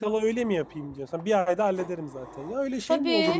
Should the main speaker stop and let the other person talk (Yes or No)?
Yes